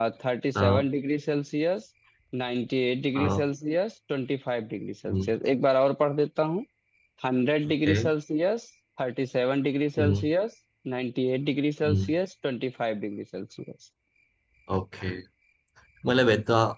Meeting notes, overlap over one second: none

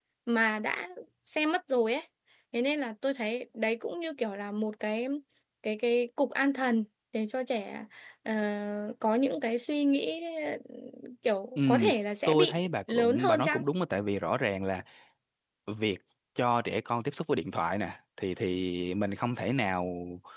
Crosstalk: present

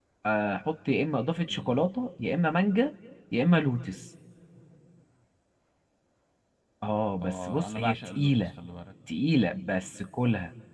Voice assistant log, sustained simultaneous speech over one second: present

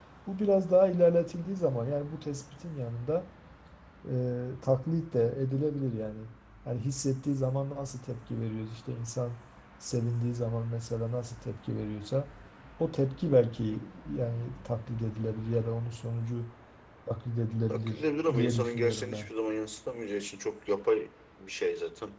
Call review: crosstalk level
present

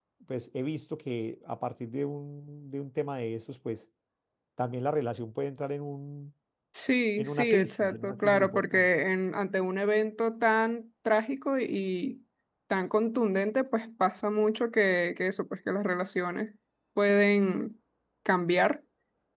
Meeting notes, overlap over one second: present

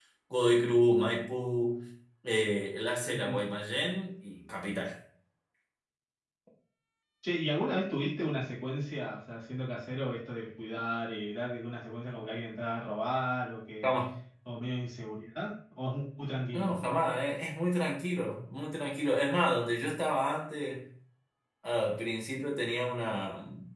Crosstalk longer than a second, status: none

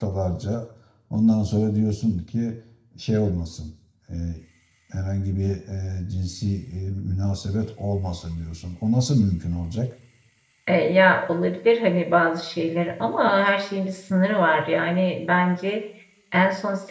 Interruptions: none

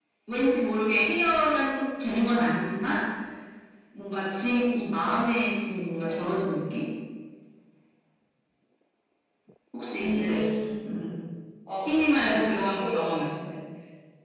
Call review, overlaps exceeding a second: present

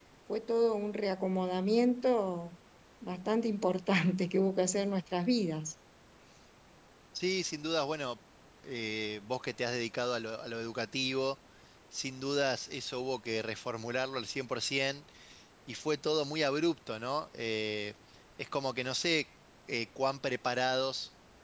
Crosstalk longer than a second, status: none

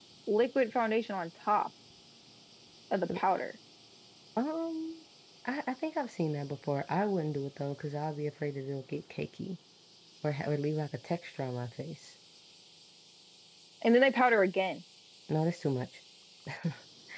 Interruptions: none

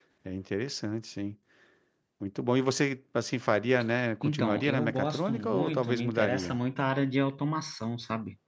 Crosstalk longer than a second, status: present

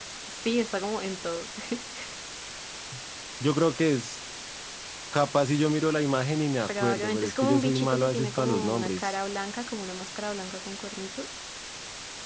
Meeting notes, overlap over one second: present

